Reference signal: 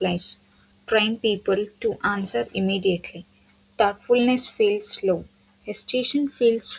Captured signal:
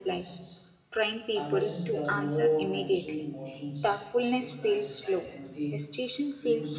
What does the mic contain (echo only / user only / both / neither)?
both